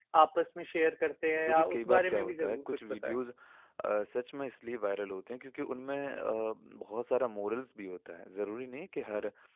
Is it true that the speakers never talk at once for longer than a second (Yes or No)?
No